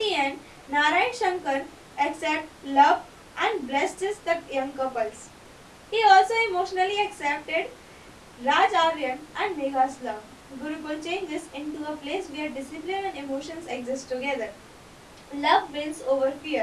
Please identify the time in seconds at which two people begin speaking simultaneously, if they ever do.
none

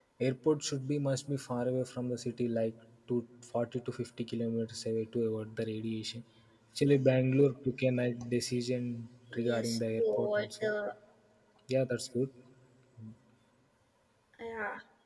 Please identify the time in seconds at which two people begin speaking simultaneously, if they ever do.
9.4 s

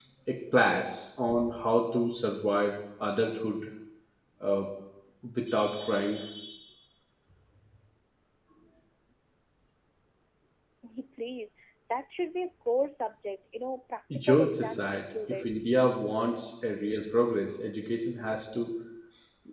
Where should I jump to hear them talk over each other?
14.1 s

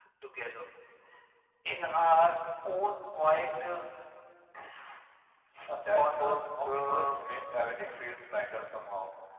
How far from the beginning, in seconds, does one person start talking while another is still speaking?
5.9 s

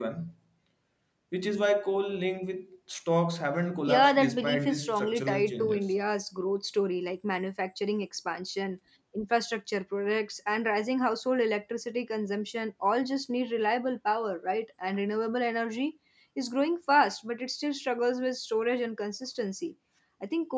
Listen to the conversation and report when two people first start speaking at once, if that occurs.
3.8 s

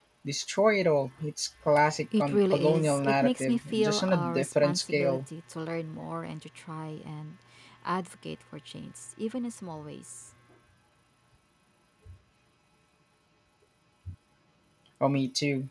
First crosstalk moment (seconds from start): 2.1 s

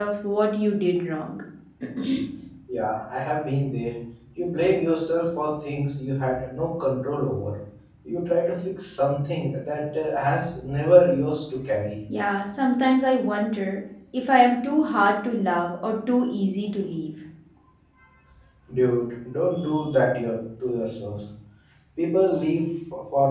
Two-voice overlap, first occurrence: none

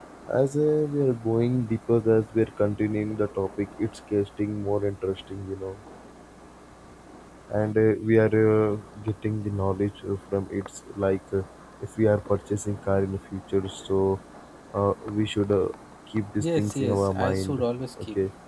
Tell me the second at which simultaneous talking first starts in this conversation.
16.4 s

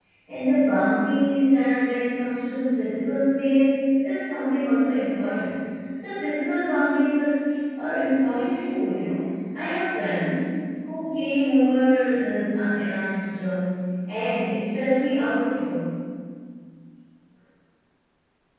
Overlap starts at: none

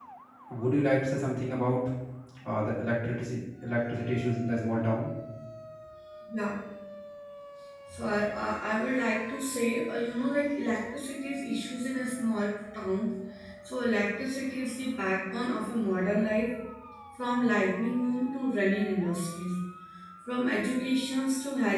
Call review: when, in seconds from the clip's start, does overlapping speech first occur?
none

